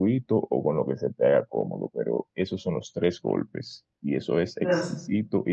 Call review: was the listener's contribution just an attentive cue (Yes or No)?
Yes